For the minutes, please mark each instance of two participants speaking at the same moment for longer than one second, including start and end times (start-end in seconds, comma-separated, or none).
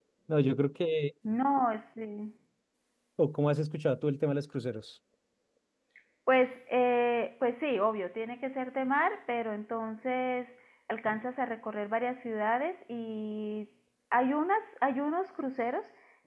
none